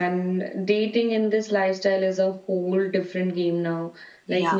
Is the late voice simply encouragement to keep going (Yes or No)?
Yes